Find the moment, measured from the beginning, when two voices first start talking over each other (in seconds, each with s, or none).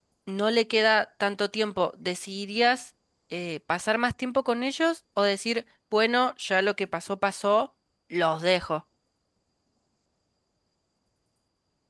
none